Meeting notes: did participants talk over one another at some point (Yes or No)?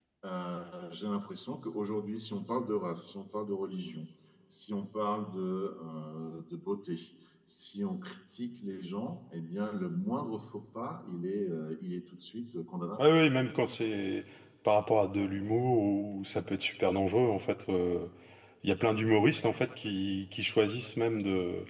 No